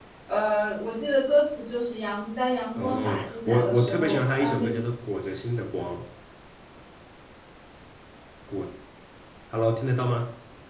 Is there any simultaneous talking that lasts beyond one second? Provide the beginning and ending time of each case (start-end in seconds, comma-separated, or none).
2.8-4.7